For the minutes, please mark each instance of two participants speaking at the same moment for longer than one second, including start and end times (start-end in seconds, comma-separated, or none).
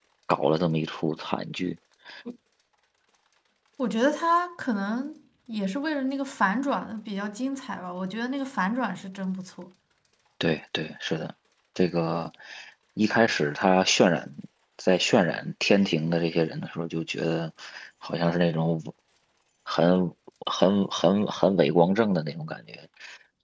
none